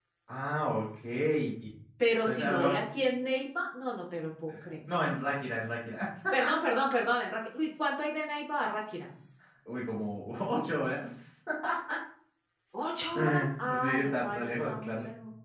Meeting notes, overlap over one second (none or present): present